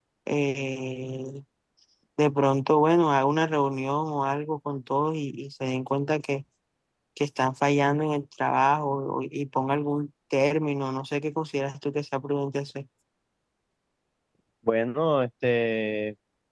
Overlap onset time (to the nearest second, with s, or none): none